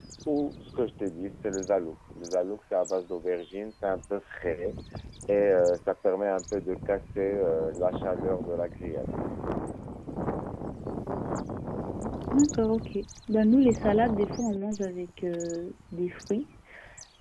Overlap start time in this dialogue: none

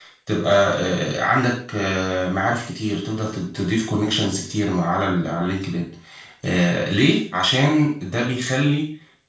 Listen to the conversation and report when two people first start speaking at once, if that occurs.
none

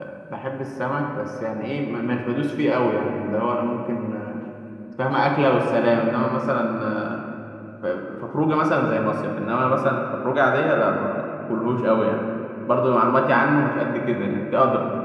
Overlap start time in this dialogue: none

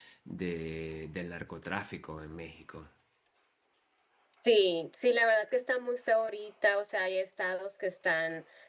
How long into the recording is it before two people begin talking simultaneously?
none

